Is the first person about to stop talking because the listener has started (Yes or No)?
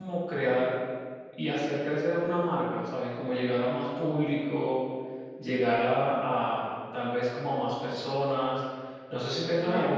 Yes